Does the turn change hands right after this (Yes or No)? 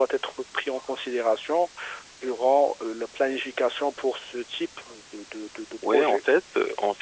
Yes